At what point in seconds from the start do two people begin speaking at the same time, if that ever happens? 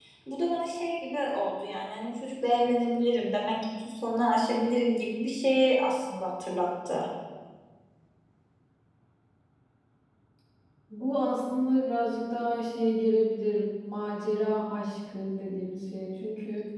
none

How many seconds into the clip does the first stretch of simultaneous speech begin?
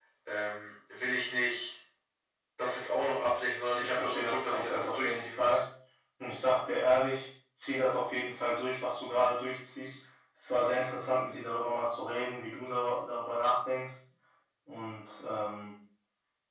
3.8 s

